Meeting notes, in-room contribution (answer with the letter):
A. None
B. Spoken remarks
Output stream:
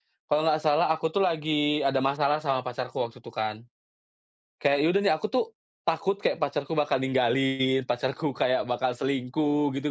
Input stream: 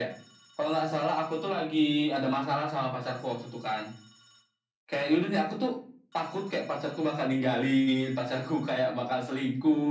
A